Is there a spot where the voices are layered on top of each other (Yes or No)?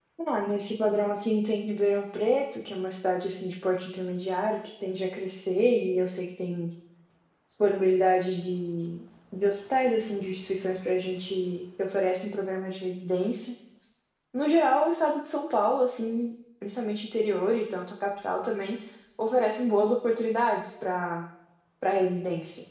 No